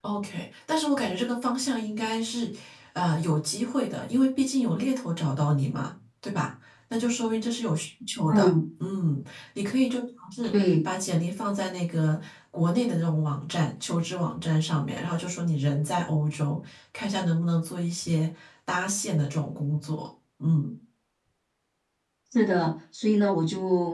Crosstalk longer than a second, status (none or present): none